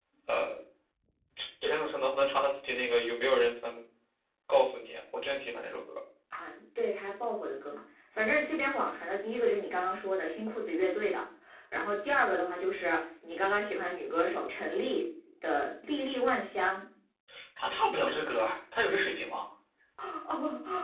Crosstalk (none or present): none